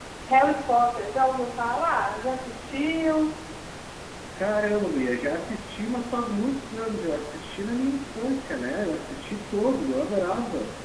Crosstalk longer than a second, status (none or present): none